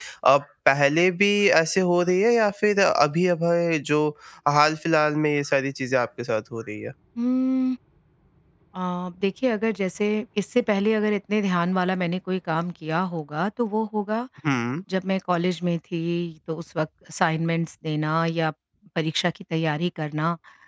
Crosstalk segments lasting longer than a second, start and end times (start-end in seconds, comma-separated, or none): none